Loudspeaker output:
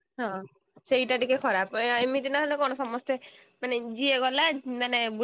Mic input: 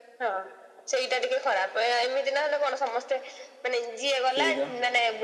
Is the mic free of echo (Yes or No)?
No